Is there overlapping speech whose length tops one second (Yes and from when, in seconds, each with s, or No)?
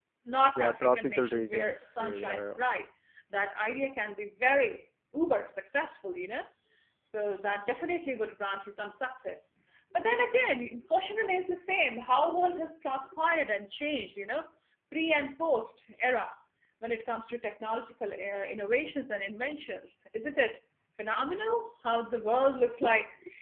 Yes, from 0.6 s